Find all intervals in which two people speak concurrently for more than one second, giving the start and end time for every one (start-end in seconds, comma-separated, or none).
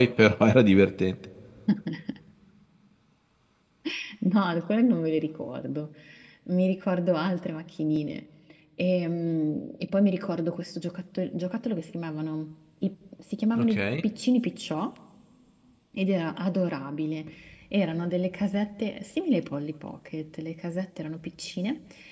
none